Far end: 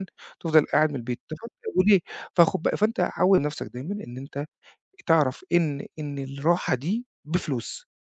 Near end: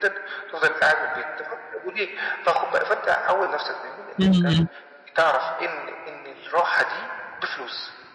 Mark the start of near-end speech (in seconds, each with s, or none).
4.2 s